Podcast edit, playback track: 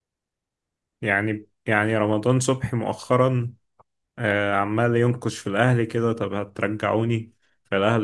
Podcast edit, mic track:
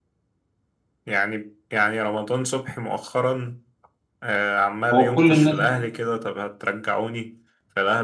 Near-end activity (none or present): present